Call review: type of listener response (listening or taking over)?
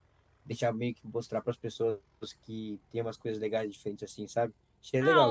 taking over